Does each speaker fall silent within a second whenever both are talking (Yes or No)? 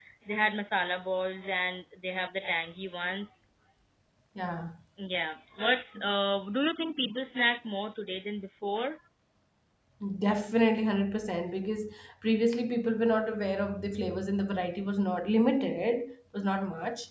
Yes